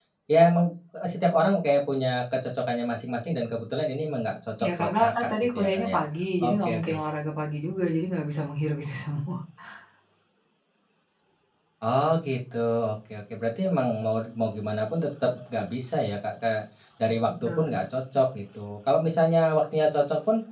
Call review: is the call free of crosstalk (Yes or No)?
No